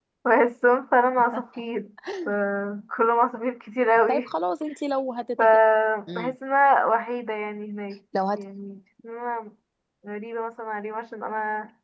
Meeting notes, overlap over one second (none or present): none